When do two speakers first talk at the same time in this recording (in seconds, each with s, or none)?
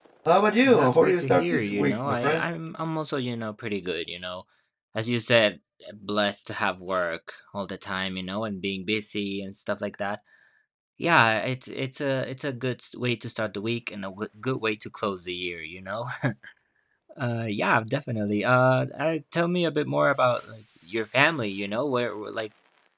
0.6 s